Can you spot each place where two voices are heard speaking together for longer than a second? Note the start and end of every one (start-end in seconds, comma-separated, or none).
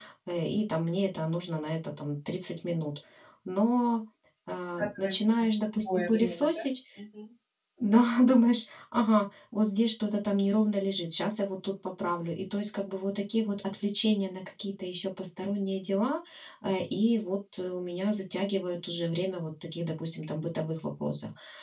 4.8-6.7